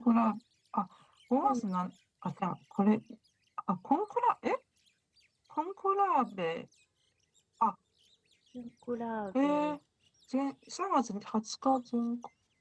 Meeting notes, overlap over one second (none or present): none